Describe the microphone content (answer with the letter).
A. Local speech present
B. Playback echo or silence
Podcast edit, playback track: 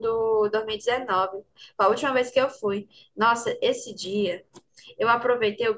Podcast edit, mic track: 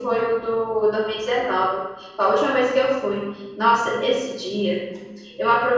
B